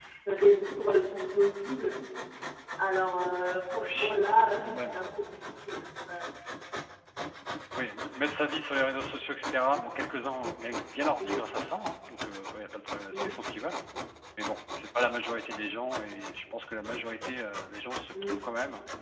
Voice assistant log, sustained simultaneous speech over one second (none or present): none